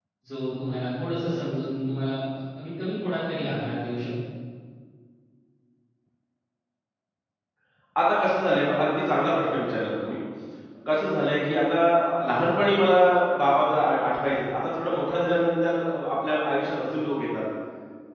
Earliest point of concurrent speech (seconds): none

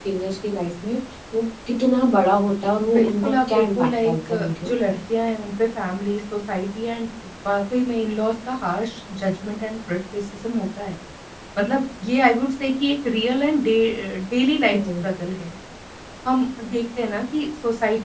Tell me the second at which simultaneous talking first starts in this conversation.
2.9 s

